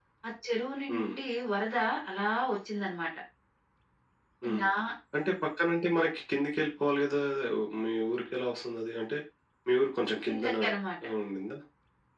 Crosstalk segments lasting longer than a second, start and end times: none

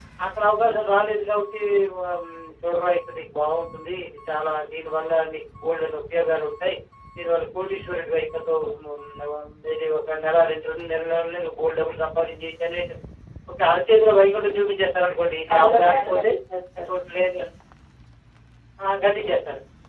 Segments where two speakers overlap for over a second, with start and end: 15.0-16.3

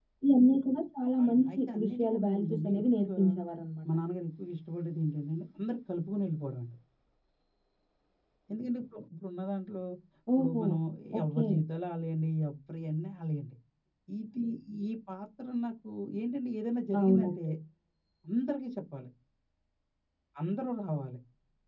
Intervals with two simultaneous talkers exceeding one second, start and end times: 1.2-3.2

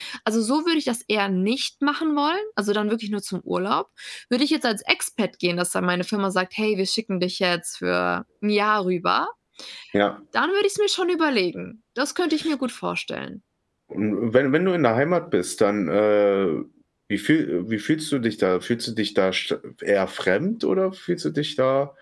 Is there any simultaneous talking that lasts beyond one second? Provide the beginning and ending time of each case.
none

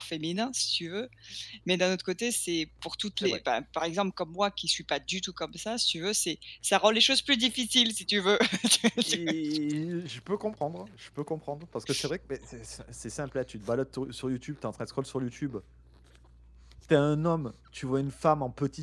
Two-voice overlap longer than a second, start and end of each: none

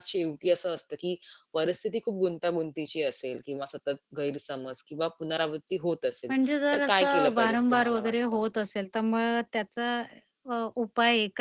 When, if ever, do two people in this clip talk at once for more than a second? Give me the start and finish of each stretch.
6.7-8.1

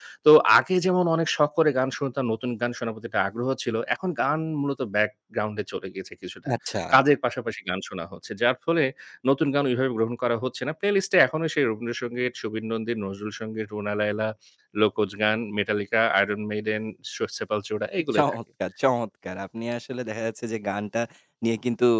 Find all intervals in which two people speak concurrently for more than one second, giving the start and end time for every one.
none

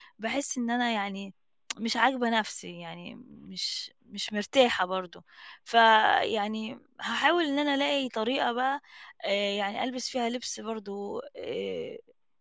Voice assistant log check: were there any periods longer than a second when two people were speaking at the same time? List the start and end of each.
none

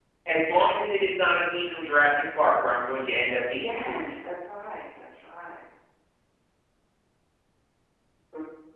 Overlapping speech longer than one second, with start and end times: none

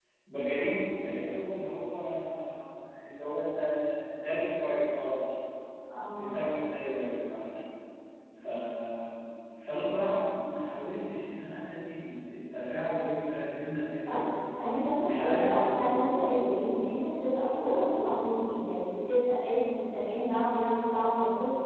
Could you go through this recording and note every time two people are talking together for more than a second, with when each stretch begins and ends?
15.1-16.5

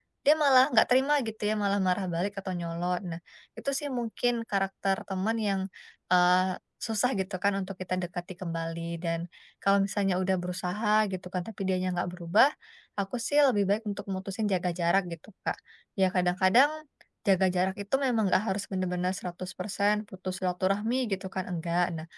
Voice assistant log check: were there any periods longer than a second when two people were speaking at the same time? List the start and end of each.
none

